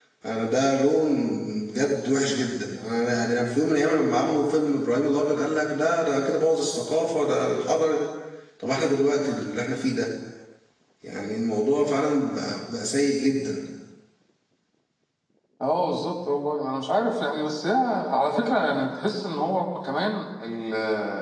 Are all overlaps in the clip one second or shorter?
Yes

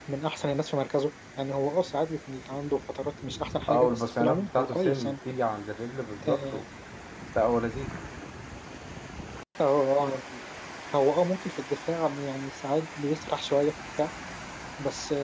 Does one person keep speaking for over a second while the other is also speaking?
Yes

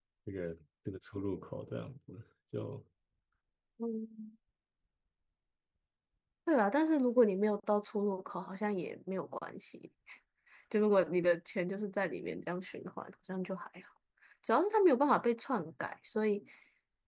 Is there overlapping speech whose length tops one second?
No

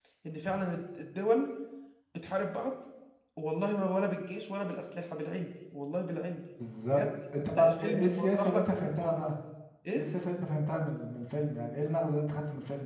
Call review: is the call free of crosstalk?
No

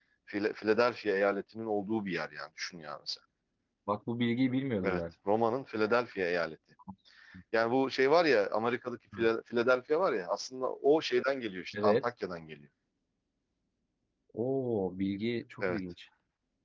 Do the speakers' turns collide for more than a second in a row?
No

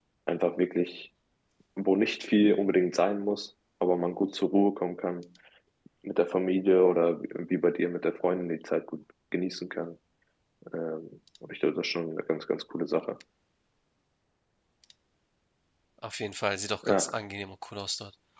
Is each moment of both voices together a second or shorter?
Yes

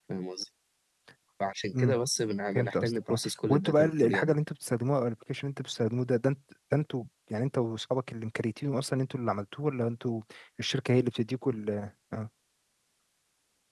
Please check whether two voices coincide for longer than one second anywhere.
Yes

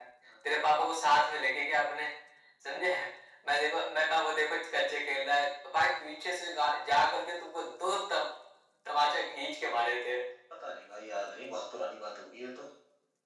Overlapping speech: No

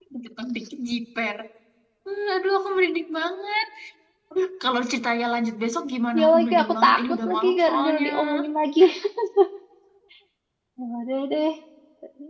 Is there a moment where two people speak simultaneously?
Yes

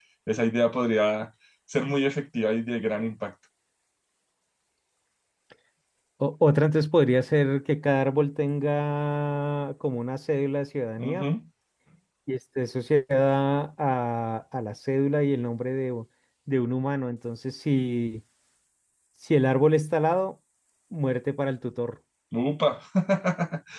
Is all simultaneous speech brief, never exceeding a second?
Yes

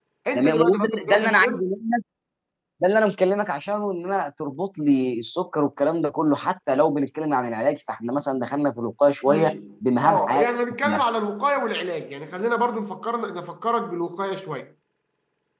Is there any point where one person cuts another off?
Yes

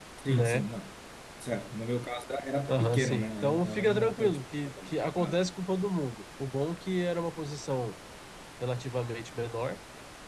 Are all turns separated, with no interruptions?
No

